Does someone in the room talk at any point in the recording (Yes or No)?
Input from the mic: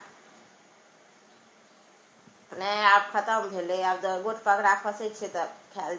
Yes